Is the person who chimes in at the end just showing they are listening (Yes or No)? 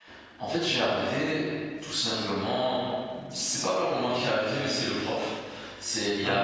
Yes